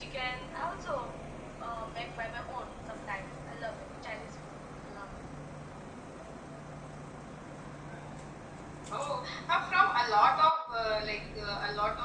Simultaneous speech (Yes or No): No